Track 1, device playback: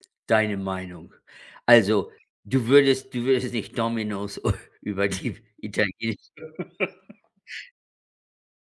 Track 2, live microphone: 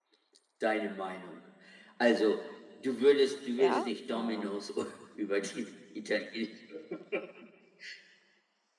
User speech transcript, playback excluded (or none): Ja, ähm,